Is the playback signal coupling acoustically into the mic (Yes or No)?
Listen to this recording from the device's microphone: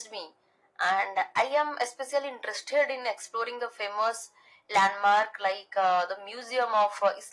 Yes